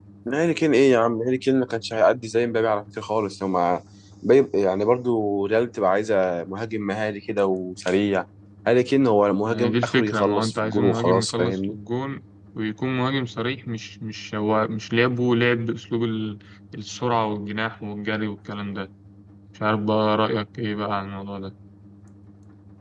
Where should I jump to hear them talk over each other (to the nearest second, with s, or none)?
9 s